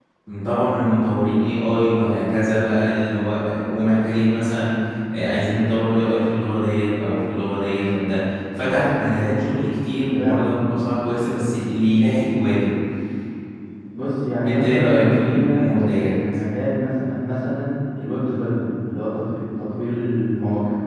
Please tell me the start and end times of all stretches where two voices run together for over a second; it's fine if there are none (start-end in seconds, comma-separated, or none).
14.4-16.1